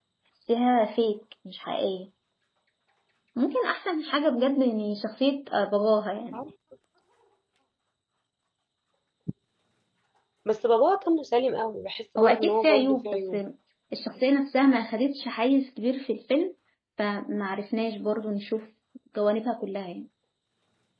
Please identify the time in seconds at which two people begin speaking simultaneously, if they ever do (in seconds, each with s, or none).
12.2 s